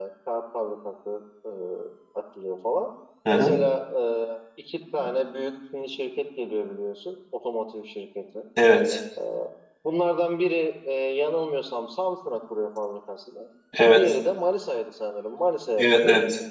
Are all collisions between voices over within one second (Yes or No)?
Yes